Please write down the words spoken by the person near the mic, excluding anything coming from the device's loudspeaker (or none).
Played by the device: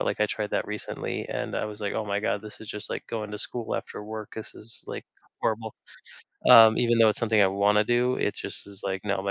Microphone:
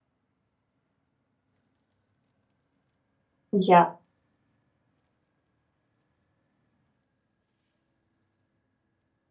Yeah.